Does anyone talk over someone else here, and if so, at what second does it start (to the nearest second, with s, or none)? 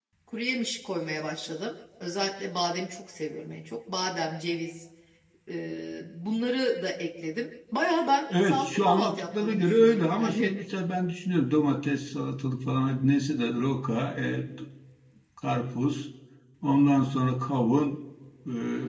8 s